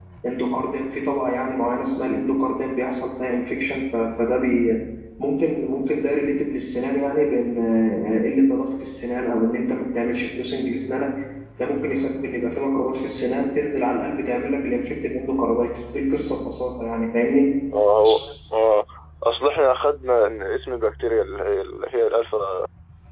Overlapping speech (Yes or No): No